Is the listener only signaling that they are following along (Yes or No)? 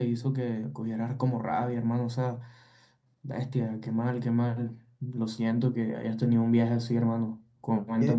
No